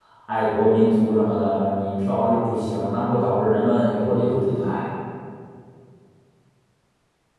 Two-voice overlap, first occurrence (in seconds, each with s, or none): none